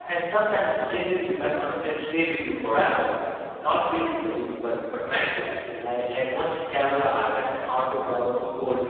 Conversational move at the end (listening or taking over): listening